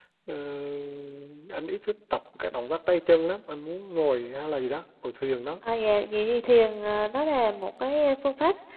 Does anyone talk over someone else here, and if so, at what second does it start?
none

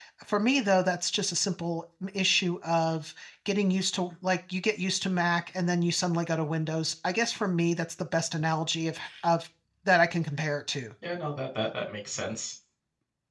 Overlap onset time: none

